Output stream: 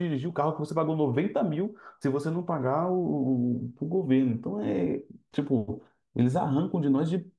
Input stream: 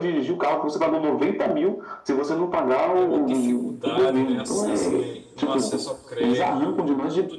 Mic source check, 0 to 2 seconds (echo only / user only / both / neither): echo only